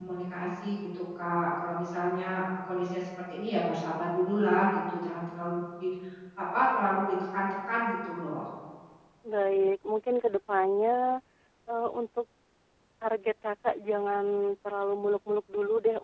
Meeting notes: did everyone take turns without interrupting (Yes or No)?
Yes